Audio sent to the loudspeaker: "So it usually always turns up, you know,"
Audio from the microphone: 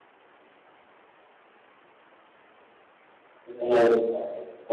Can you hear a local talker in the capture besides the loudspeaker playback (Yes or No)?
Yes